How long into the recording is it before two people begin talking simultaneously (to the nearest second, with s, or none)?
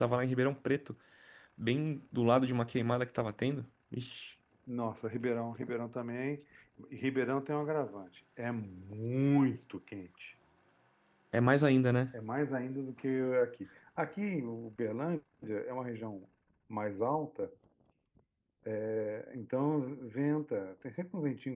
none